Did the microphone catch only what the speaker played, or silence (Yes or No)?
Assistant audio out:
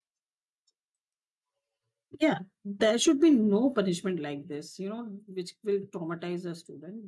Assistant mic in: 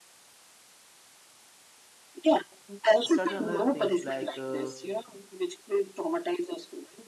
No